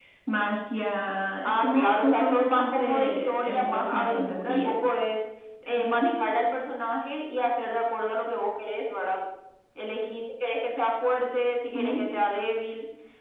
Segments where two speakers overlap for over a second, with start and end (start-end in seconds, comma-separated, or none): 1.4-4.7